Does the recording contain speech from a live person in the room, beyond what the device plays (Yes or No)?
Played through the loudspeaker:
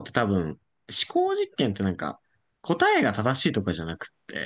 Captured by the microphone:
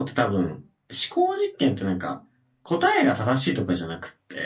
No